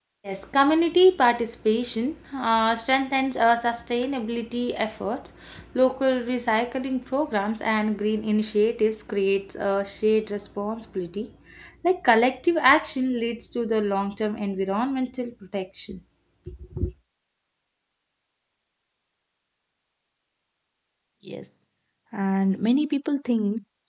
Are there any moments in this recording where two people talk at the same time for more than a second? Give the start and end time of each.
none

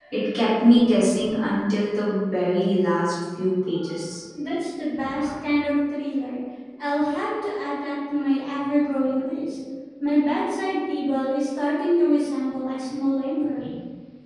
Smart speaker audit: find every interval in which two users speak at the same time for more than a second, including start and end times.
none

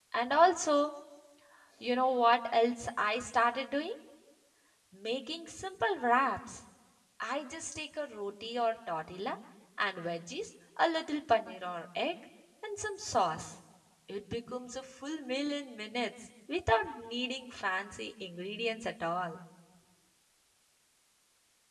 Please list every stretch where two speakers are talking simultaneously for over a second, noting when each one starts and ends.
none

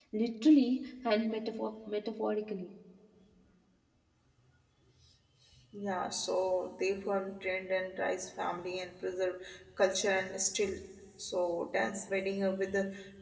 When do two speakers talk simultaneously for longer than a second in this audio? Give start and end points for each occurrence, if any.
none

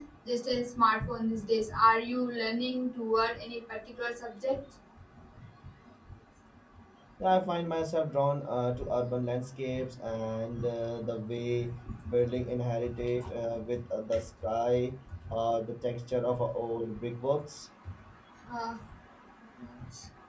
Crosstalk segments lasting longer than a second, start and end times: none

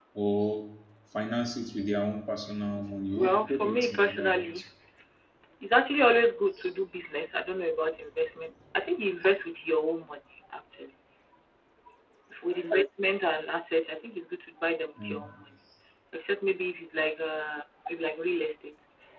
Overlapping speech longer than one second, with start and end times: 3.1-4.5

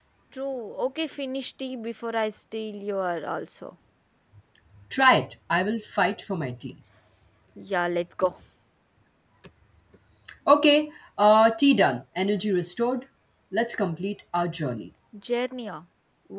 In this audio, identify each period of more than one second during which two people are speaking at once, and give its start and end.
none

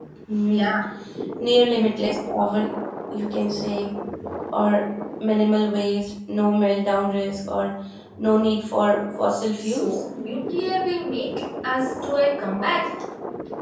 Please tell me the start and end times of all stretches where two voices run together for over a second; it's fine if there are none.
none

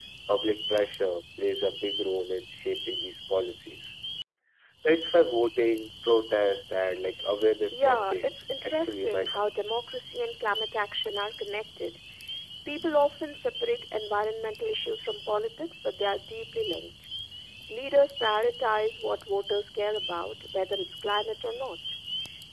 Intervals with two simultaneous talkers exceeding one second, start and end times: 7.7-9.4

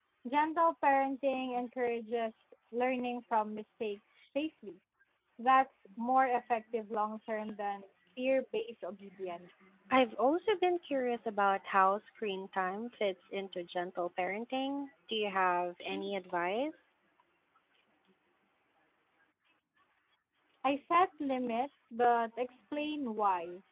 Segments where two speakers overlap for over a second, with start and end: none

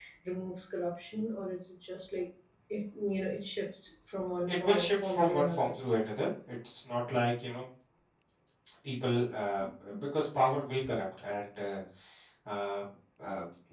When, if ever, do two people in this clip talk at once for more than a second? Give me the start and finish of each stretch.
4.5-5.8

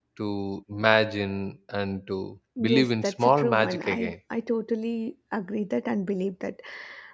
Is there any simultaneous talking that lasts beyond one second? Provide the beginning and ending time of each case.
2.6-4.1

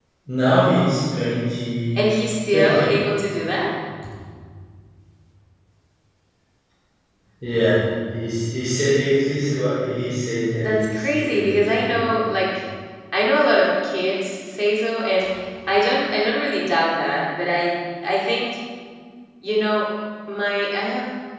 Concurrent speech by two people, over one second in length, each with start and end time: 10.6-12.1

